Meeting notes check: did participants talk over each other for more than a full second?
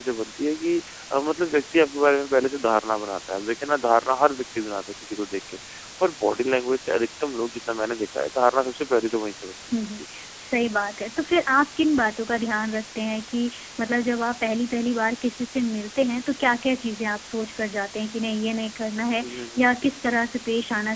No

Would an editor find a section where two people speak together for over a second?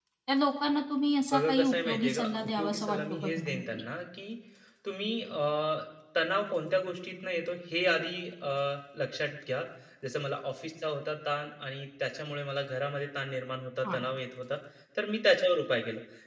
Yes, from 1.3 s

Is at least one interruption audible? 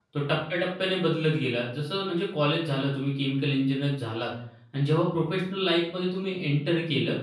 No

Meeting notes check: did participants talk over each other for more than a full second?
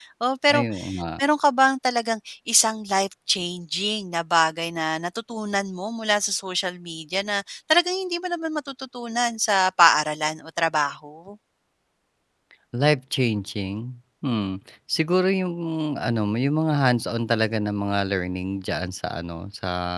No

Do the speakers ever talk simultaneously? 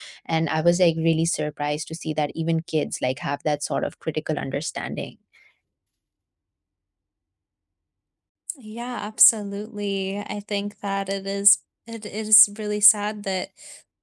No

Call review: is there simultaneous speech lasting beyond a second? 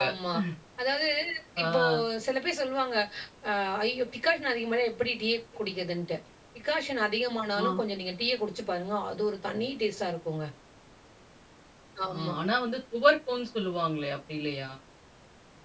No

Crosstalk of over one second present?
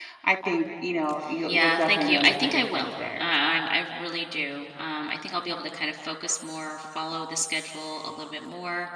Yes, from 1.5 s

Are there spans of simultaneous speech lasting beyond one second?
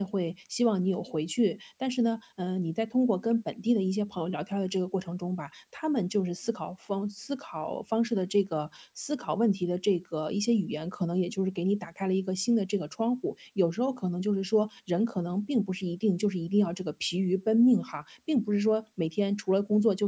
No

